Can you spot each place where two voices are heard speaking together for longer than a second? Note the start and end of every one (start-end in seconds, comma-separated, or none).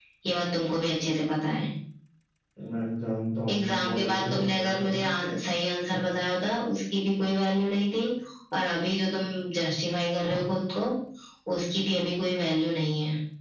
3.5-5.0